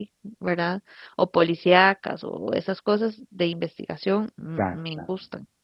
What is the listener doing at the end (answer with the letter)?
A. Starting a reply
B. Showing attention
B